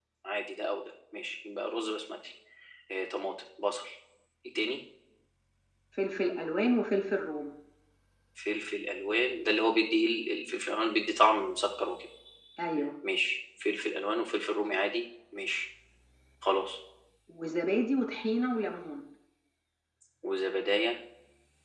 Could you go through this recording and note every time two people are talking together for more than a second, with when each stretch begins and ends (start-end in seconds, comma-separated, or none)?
none